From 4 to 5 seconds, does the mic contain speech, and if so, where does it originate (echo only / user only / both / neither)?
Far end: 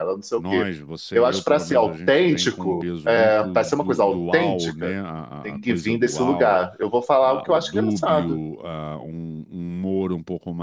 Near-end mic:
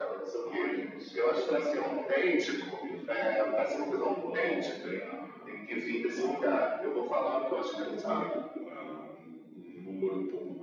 echo only